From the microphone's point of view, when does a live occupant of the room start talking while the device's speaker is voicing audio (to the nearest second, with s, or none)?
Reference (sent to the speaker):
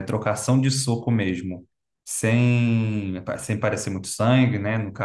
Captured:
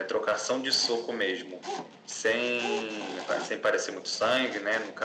none